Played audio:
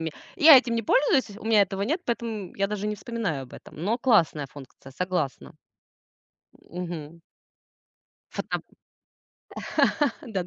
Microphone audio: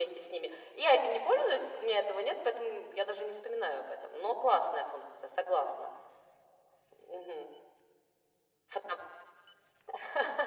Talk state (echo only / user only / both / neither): echo only